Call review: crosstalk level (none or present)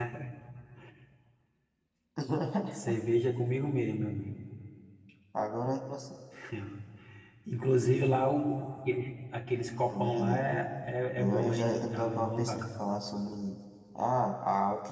present